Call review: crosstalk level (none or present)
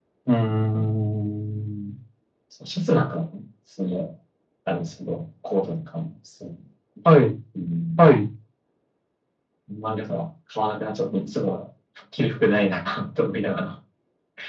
none